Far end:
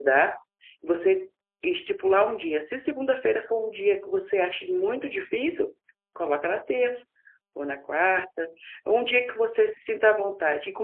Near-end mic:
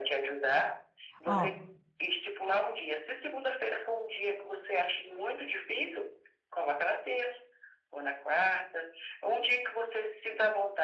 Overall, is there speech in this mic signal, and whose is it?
both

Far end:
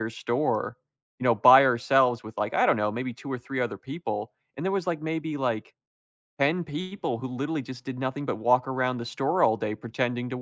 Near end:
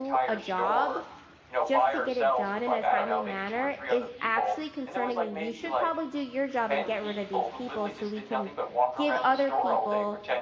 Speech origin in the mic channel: both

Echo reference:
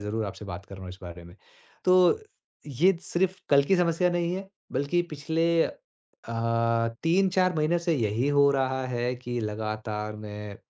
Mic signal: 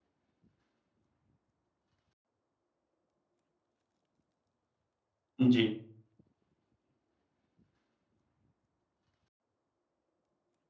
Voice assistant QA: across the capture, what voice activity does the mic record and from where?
user only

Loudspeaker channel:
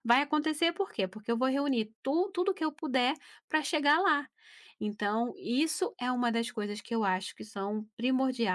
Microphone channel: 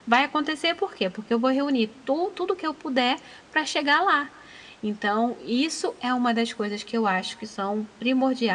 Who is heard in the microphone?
echo only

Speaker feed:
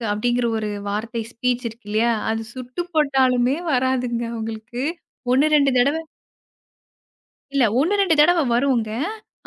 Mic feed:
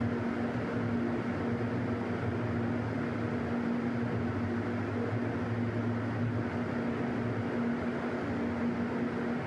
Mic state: neither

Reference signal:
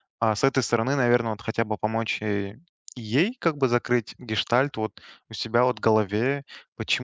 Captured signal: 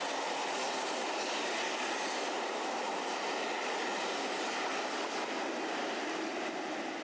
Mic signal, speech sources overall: neither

